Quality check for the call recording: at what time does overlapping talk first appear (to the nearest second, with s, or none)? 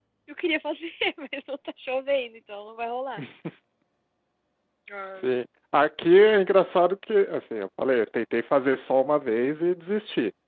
none